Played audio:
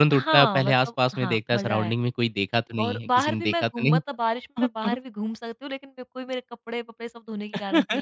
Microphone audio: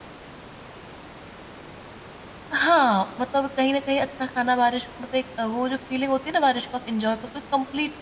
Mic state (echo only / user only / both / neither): user only